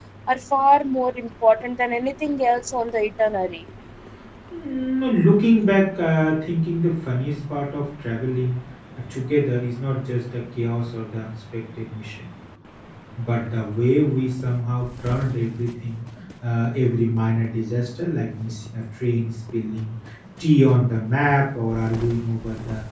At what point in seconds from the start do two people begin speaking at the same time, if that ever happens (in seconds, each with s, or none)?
none